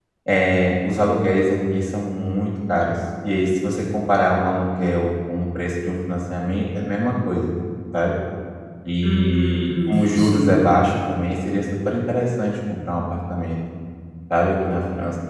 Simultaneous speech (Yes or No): Yes